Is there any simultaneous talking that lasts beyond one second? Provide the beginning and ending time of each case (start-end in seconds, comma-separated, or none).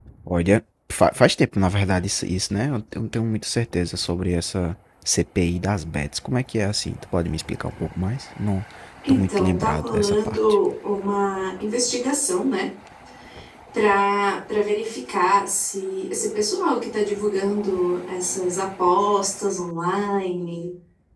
9.1-10.6